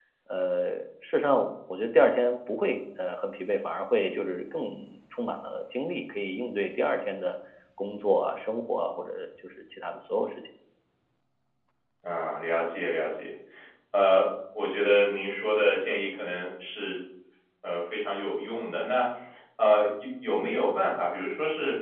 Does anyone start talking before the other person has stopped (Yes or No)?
No